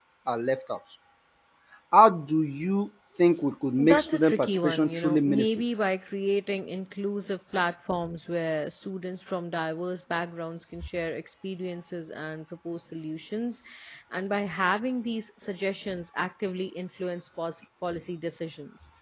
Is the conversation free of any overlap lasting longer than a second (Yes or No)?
No